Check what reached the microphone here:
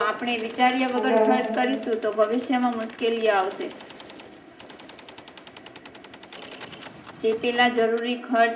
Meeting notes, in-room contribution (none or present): present